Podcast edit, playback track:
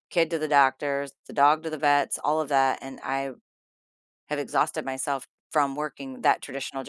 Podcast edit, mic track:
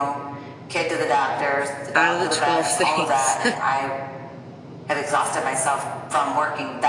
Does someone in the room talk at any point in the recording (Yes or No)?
Yes